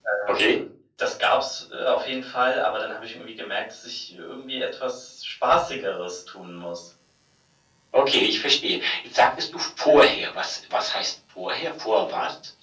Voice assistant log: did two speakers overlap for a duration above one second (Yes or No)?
No